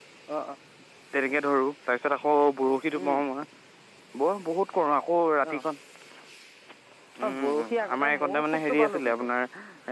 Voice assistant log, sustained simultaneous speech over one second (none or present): present